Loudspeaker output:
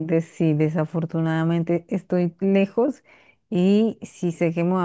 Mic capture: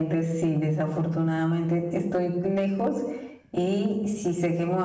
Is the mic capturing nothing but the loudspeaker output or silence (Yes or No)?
Yes